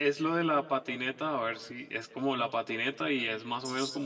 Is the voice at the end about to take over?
No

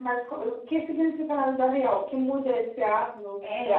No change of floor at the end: No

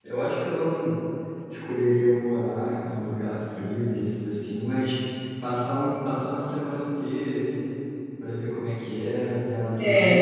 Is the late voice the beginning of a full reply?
Yes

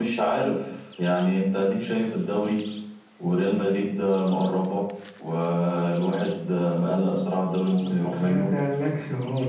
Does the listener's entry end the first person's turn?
Yes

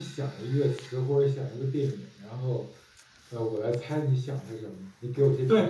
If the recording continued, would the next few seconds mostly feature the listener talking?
Yes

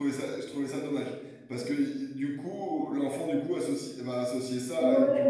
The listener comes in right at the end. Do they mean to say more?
Yes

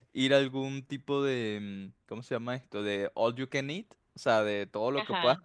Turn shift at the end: No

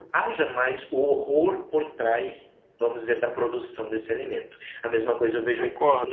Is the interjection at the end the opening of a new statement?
No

